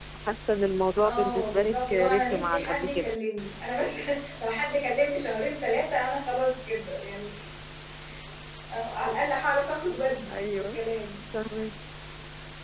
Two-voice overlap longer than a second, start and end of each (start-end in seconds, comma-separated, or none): 1.1-3.1